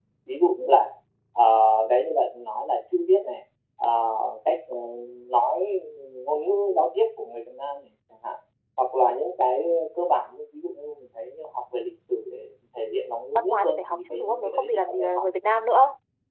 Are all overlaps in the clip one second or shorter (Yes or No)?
No